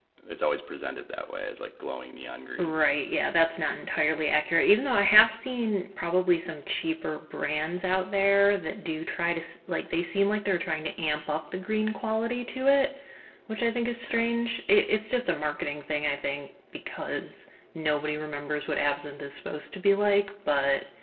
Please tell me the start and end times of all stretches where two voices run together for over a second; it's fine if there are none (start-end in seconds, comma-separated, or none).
none